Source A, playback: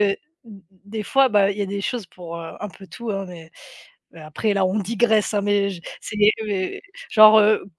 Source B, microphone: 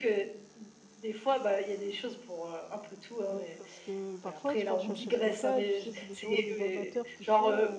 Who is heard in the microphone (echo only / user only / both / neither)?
both